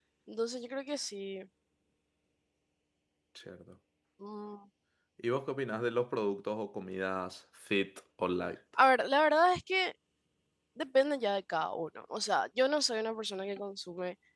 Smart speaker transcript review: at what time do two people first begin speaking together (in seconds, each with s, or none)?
none